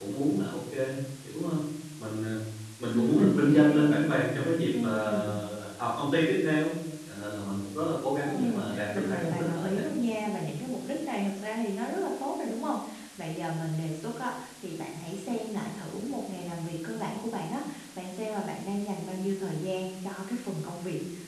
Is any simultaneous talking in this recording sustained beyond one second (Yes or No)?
Yes